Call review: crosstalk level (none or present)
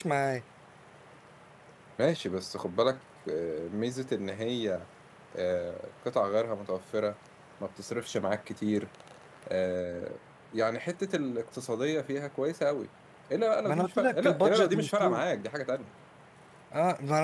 present